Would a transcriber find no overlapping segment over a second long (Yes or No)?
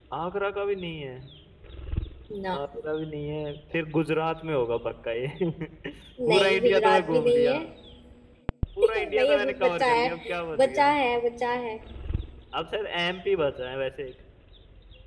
No